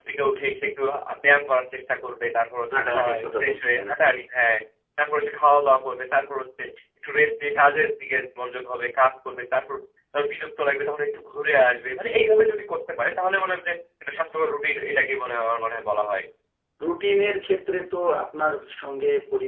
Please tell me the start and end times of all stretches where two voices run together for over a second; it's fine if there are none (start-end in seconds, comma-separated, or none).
2.7-4.2